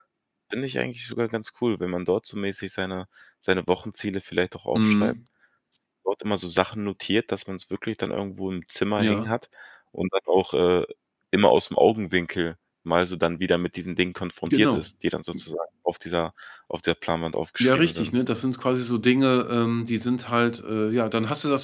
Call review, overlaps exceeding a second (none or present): none